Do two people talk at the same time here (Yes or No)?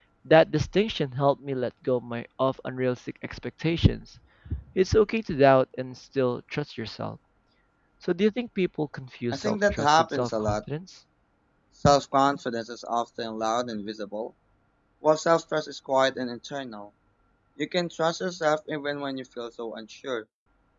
Yes